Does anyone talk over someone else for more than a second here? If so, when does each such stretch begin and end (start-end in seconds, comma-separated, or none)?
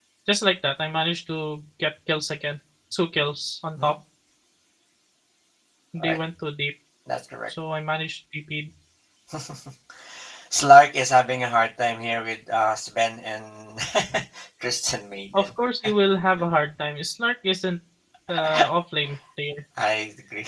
none